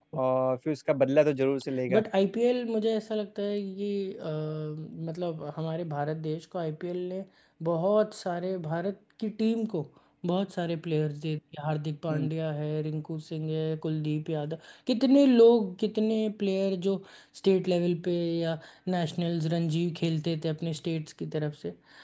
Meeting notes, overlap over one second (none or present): none